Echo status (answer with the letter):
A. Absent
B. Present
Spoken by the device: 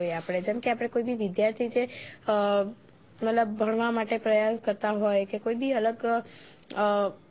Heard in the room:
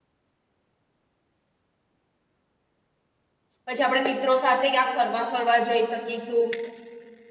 A